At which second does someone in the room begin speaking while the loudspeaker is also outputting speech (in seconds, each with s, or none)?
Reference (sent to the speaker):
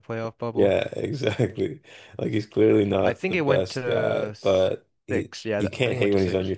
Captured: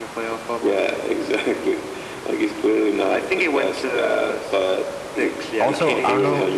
5.6 s